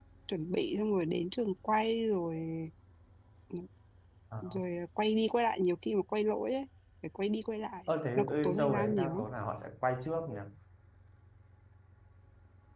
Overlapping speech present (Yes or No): Yes